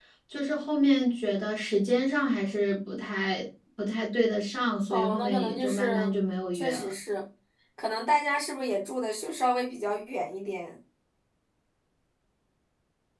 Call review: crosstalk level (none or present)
present